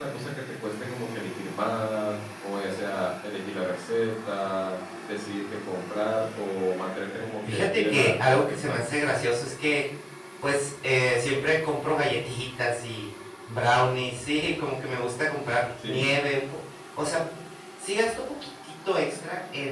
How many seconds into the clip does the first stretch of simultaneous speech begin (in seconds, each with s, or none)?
7.5 s